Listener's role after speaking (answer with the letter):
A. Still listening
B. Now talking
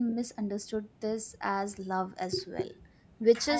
A